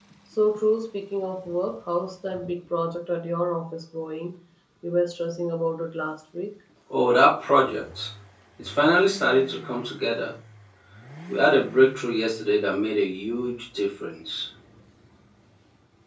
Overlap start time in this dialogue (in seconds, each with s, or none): none